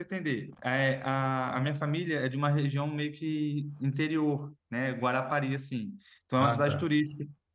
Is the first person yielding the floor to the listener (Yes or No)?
No